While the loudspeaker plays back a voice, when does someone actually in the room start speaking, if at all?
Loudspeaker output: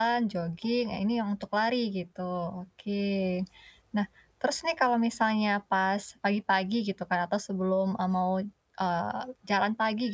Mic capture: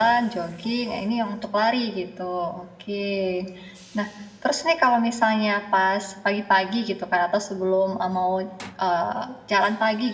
none

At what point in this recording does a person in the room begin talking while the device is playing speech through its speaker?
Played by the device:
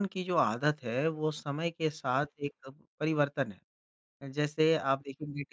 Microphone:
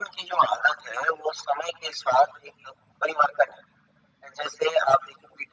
none

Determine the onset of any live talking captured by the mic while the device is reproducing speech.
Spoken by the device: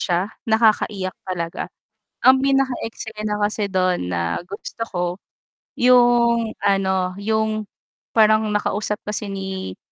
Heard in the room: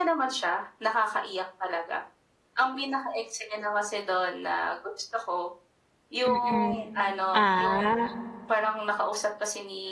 6.2 s

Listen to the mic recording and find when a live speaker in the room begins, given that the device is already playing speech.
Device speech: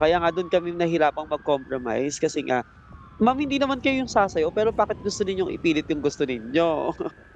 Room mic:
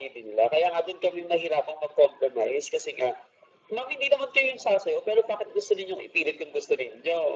none

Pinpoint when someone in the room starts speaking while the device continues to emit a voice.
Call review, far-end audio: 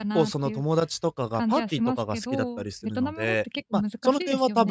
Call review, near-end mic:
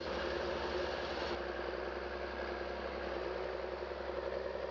none

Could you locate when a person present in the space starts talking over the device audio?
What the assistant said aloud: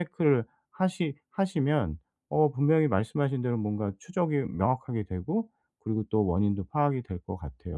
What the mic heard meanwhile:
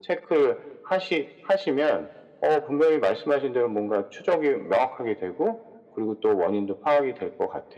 none

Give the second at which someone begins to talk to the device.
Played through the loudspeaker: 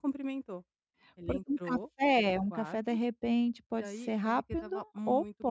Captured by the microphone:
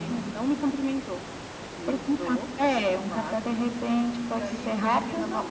none

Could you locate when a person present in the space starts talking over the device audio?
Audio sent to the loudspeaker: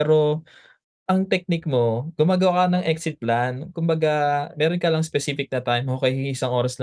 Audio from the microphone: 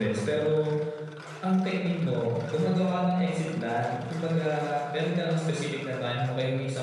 none

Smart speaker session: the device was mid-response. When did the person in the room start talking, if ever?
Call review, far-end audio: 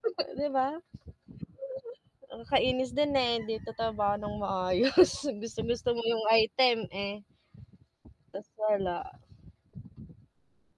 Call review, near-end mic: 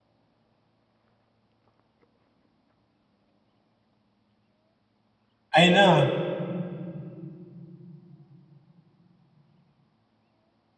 5.5 s

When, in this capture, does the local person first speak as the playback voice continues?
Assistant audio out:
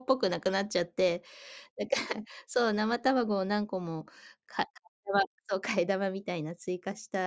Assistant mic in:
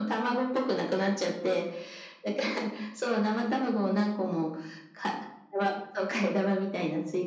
none

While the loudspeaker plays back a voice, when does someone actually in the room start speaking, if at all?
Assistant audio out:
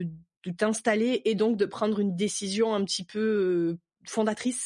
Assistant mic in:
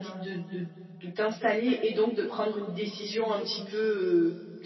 none

